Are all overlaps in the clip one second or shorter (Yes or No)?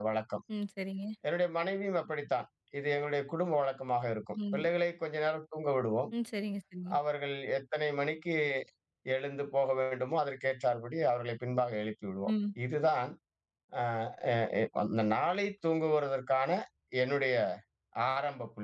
Yes